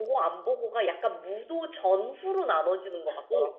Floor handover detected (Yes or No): Yes